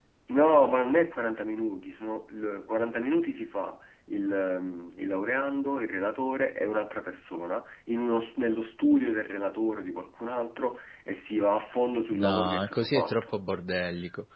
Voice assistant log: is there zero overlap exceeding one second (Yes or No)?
No